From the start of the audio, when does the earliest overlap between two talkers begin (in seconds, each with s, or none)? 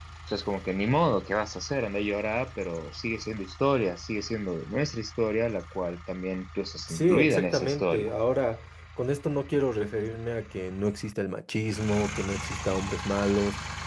6.9 s